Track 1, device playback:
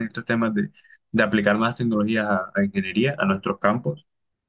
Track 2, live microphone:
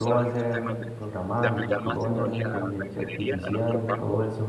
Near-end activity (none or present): present